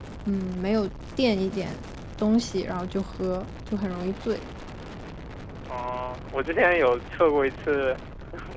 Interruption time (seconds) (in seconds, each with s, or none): none